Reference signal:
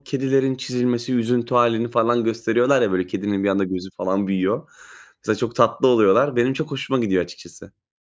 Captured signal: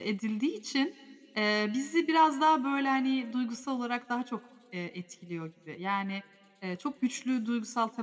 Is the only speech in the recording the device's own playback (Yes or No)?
No